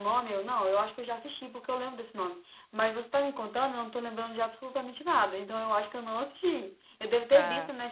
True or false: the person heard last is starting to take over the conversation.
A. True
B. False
B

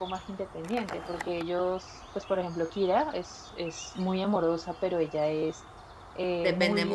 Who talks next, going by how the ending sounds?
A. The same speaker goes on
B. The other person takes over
A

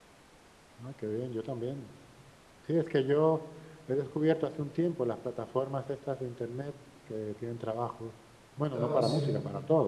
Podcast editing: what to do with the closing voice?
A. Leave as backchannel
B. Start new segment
A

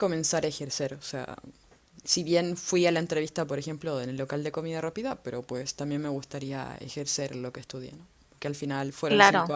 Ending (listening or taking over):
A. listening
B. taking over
A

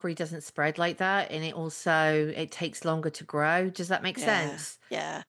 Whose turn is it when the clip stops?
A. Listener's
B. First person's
A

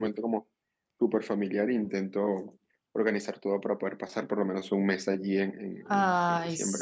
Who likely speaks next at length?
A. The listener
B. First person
A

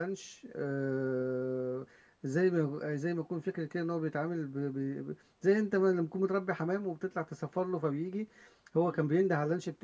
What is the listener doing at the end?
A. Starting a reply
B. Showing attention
B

